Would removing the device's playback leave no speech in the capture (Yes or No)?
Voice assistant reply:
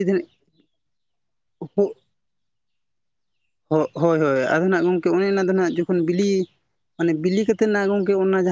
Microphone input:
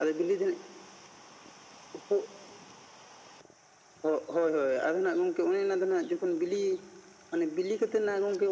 Yes